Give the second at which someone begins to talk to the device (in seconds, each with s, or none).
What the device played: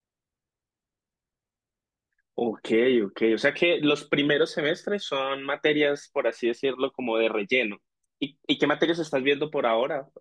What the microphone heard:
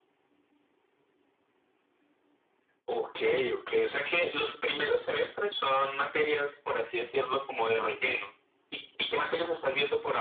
none